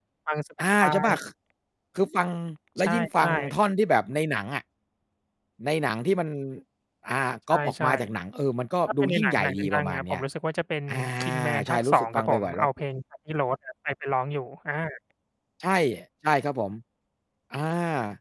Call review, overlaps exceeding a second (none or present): present